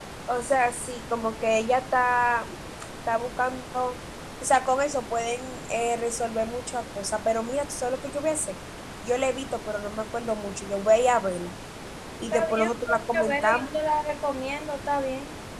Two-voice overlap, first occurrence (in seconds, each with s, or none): 12.3 s